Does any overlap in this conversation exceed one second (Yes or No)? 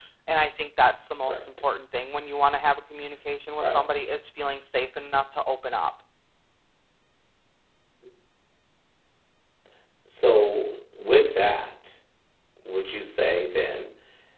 No